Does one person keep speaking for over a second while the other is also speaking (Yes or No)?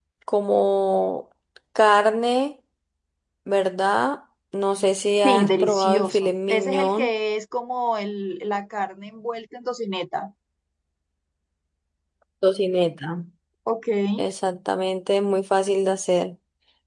Yes